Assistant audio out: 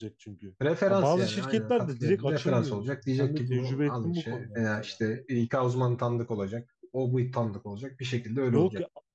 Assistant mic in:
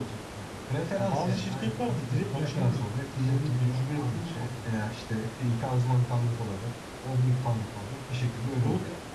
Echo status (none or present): present